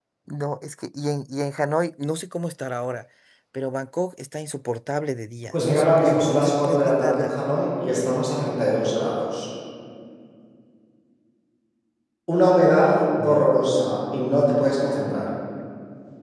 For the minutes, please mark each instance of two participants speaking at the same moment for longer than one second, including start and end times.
5.5-7.3

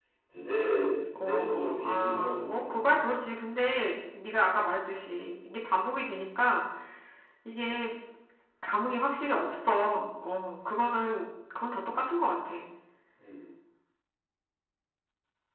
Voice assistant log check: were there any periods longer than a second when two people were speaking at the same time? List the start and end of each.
1.2-3.1

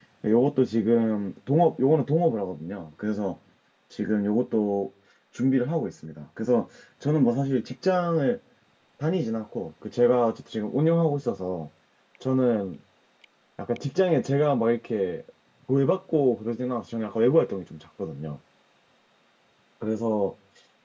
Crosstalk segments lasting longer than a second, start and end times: none

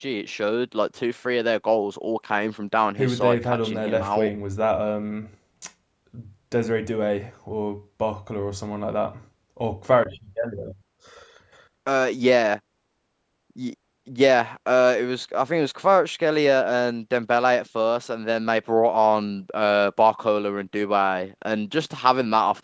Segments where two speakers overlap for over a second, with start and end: 3.0-4.3

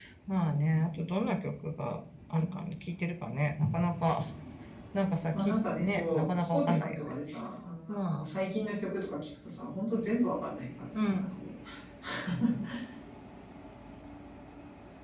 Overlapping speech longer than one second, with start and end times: 5.3-7.1

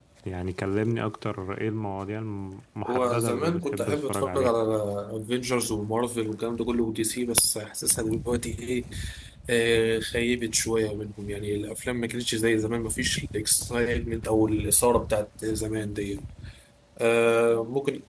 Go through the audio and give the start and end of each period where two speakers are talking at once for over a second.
2.9-4.5

